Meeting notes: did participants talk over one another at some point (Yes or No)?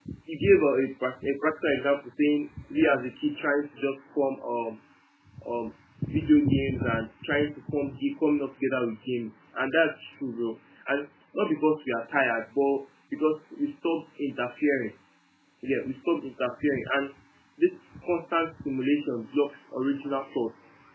No